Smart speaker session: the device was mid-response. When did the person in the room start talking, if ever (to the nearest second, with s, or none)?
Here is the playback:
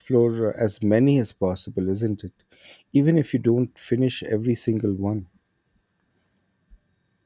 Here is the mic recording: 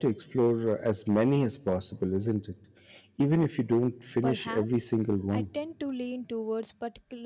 4 s